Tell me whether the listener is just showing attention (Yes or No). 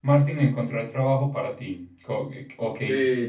No